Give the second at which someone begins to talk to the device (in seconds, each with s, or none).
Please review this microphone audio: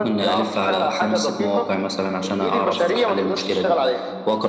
none